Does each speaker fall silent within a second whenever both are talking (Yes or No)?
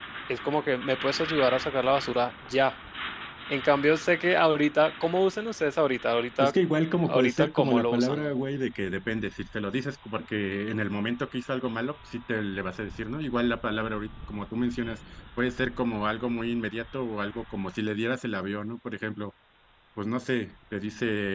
No